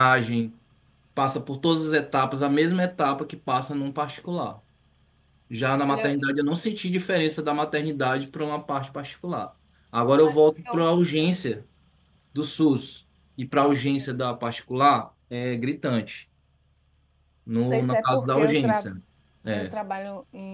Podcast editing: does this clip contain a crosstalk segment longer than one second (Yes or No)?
Yes